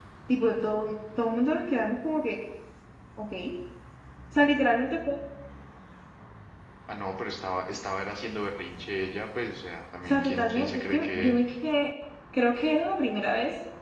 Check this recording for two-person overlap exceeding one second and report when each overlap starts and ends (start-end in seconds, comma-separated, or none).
10.1-11.4